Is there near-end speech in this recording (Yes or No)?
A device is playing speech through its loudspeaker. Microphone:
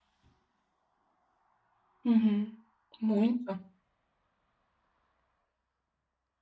Yes